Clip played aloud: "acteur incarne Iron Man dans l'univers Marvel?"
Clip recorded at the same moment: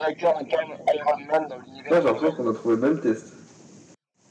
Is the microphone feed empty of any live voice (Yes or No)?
No